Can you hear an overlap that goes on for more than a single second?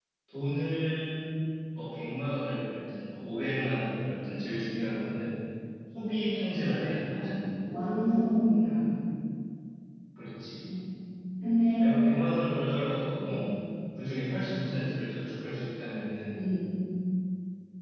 No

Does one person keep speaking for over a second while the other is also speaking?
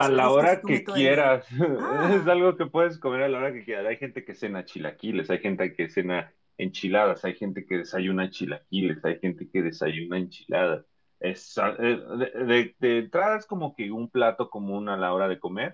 Yes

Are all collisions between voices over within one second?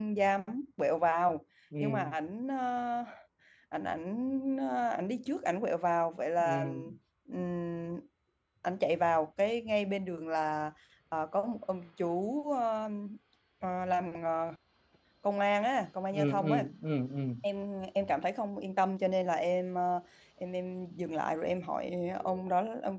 Yes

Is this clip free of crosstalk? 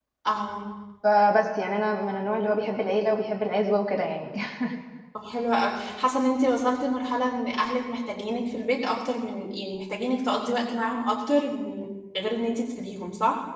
Yes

